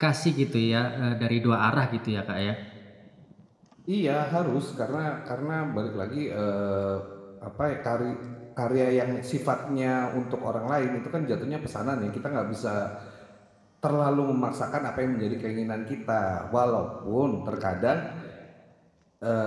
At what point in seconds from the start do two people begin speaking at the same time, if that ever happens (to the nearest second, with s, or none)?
none